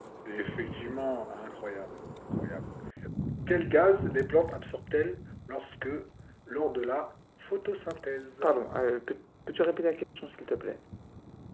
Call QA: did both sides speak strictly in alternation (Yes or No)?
Yes